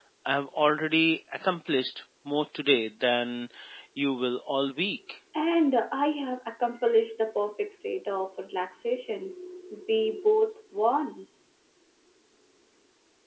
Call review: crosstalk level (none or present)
none